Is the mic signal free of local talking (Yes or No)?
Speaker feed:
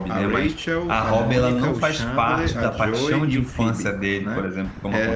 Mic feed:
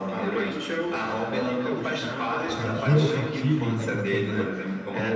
No